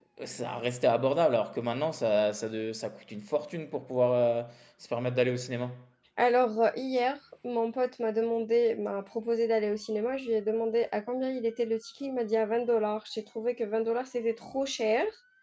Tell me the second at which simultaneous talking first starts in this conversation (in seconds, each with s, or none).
none